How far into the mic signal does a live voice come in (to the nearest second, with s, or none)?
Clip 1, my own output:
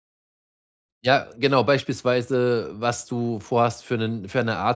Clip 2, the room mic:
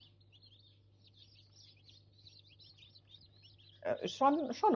4 s